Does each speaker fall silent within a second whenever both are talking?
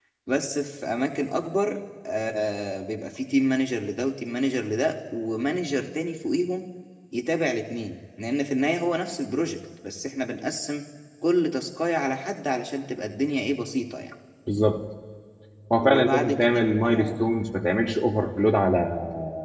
No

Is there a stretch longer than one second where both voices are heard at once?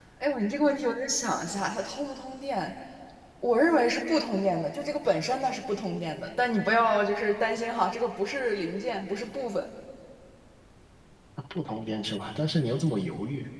No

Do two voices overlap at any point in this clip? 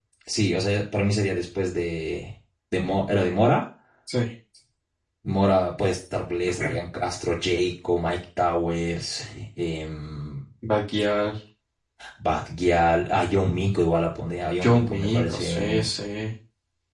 Yes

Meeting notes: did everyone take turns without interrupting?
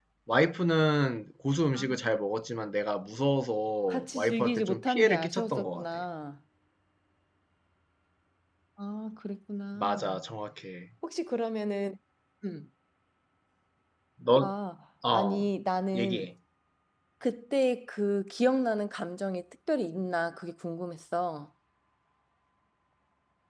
No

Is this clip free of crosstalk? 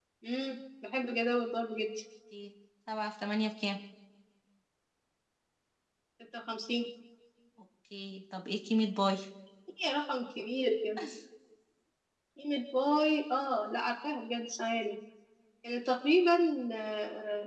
Yes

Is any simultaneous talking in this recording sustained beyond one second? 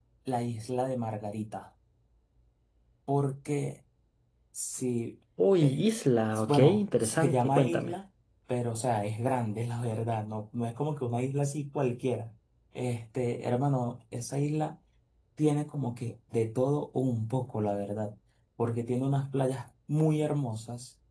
Yes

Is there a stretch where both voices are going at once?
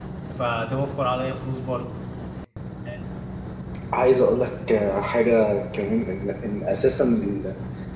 No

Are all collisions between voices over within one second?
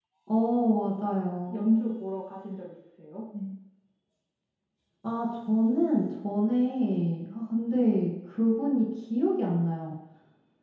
Yes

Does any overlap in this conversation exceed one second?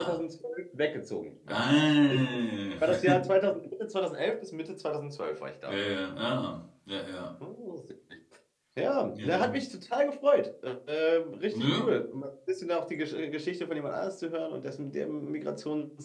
No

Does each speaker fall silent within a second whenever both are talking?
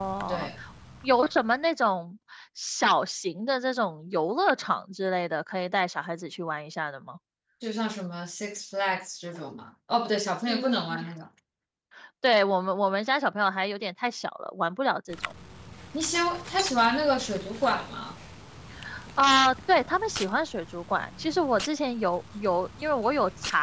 Yes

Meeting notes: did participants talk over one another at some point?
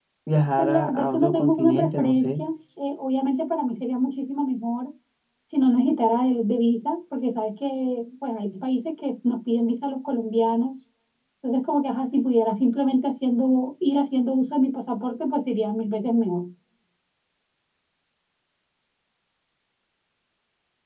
Yes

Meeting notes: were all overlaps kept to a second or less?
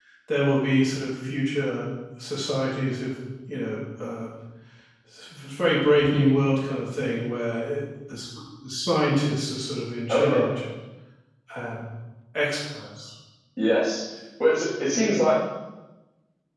Yes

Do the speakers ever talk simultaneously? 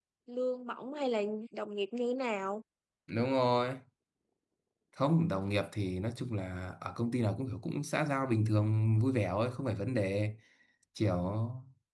No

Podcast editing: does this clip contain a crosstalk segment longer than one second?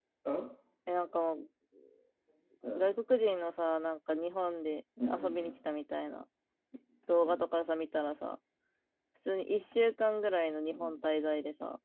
No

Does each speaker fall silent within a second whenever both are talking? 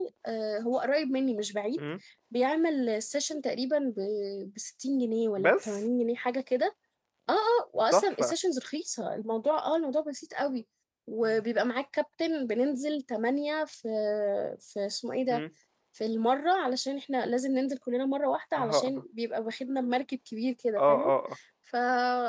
Yes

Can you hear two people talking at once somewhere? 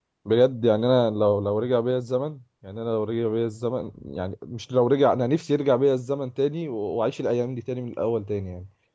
No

